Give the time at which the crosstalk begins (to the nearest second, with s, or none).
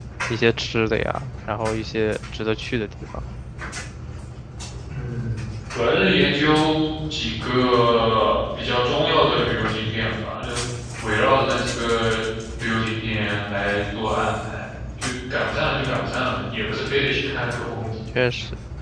none